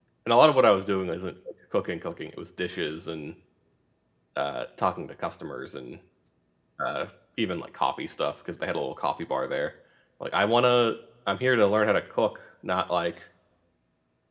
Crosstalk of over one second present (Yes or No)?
No